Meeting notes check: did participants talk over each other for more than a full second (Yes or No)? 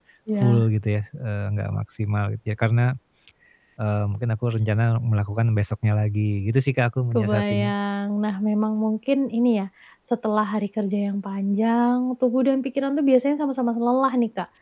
No